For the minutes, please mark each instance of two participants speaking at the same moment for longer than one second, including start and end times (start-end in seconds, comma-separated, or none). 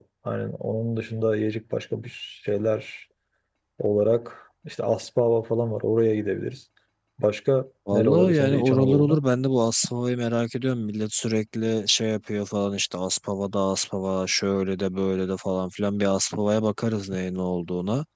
7.9-9.2